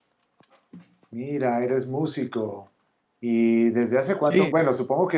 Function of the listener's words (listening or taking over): listening